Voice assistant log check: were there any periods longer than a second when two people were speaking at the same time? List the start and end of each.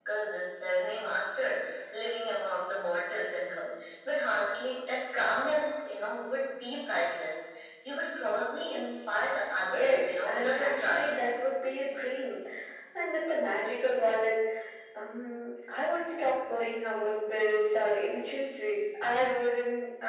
9.6-11.3

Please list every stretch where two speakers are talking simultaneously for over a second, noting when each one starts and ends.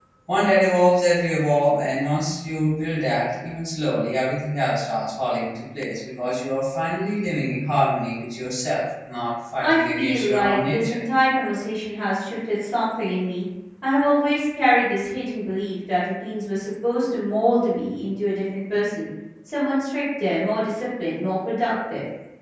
9.6-11.0

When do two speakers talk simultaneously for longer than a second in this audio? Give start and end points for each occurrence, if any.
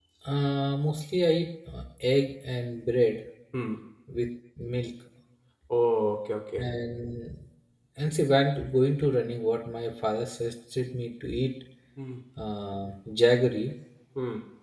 none

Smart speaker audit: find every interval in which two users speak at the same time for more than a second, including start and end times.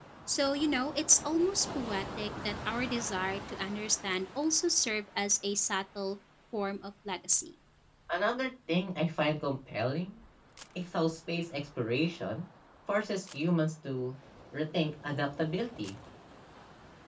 none

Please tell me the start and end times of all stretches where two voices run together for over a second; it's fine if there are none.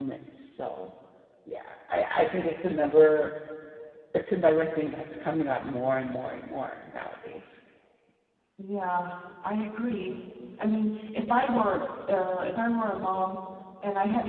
none

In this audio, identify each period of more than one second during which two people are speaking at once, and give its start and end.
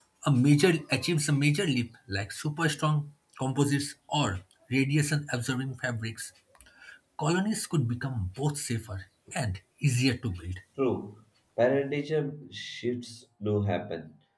none

